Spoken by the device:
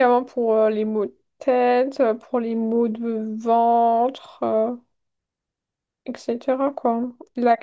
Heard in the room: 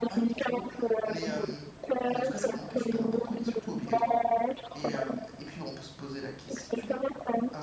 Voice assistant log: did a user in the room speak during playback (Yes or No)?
Yes